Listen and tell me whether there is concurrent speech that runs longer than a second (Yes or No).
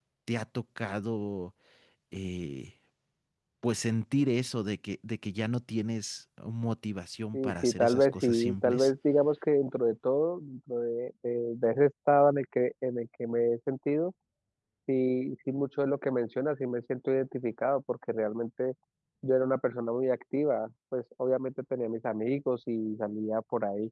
Yes